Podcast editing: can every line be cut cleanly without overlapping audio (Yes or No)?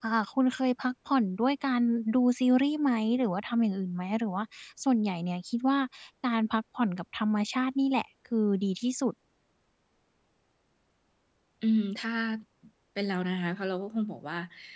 Yes